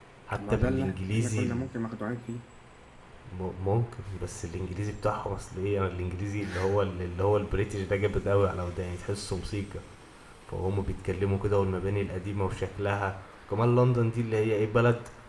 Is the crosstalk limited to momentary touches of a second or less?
No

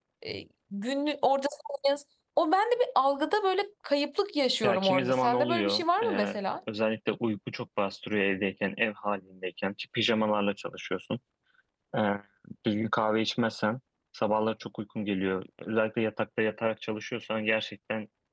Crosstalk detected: Yes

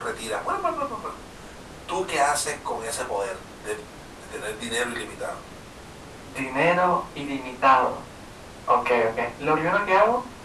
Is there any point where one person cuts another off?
No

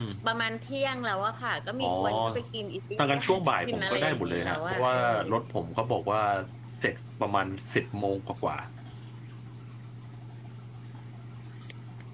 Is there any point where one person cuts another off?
Yes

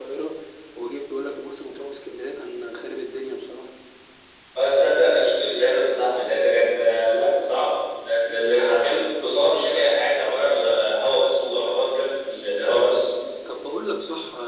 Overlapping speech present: No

